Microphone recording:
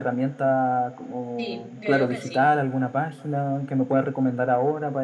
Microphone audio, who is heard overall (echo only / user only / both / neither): both